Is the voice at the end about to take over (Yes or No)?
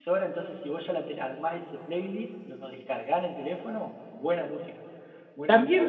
Yes